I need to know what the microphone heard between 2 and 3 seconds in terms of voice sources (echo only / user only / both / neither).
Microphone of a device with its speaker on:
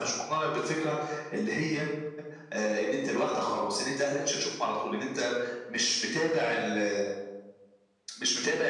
echo only